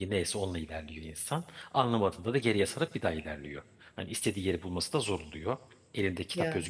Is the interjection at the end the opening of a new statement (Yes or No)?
No